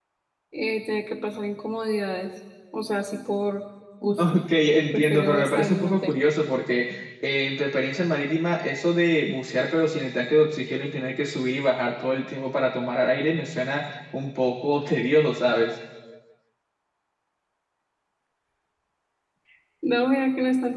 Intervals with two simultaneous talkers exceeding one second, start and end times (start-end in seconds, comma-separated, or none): 4.9-6.1